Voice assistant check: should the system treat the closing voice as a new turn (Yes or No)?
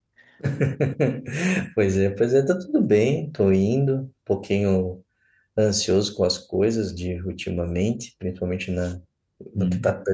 No